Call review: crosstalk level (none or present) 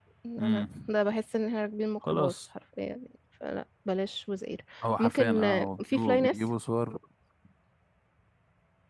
present